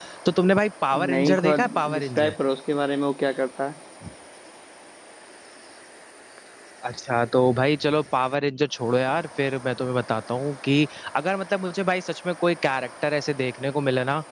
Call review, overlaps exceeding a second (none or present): present